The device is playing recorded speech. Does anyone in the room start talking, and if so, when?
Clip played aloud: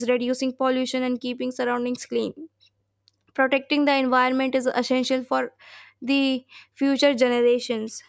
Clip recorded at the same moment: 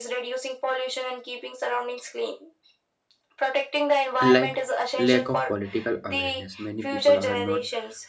4.2 s

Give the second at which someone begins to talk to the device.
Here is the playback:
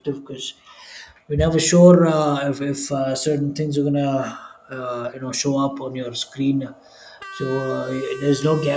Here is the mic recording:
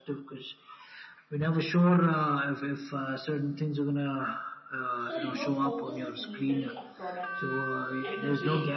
5.0 s

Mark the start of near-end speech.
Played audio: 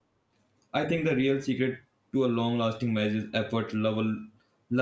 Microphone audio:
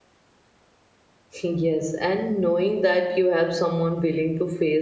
1.4 s

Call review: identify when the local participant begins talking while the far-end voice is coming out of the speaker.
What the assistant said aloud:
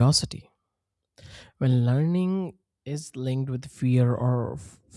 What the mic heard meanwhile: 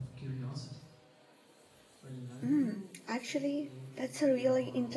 2.4 s

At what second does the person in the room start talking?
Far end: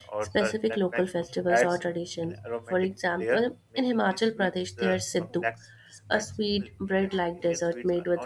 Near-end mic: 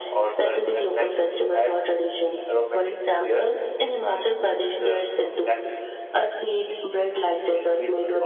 none

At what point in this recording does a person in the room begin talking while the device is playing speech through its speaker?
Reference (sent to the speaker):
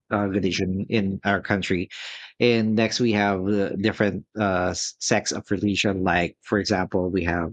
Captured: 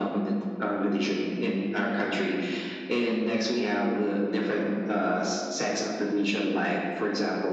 none

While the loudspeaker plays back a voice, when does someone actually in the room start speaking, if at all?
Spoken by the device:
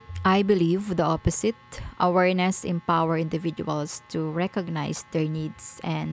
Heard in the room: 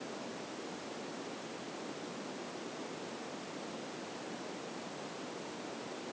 none

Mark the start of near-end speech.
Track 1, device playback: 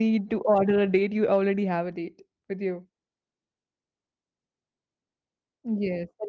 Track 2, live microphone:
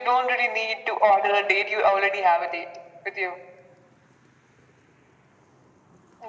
none

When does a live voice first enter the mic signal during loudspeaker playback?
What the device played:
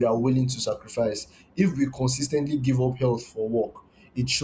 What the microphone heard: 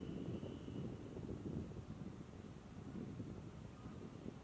none

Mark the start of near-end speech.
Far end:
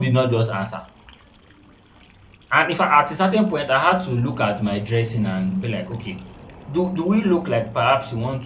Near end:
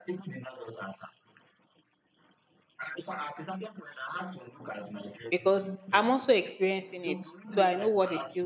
5.3 s

